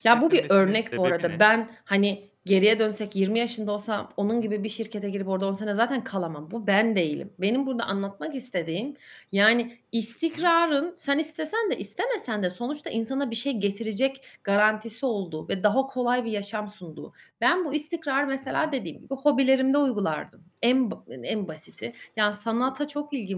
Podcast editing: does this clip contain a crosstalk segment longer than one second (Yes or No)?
Yes